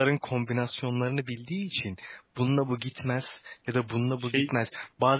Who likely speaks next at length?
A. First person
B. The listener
A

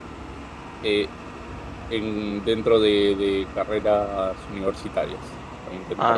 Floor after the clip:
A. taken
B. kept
A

